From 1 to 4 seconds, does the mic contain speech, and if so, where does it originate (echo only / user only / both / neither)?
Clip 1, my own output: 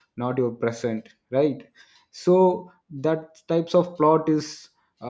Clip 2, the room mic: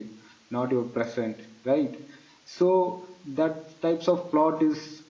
echo only